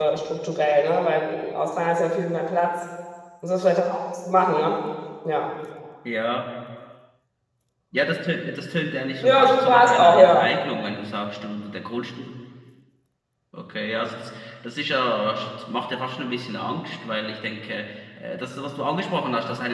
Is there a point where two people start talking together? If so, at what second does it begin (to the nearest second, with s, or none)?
9 s